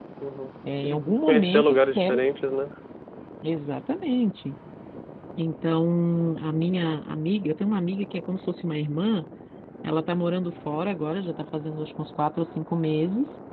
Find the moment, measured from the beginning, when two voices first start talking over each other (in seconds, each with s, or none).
0.8 s